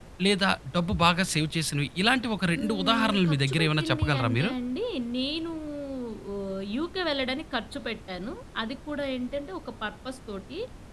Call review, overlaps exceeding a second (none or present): present